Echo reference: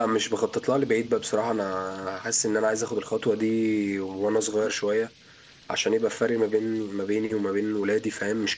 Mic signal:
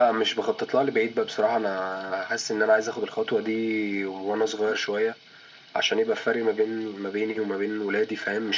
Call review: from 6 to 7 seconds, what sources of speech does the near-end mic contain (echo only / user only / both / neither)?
echo only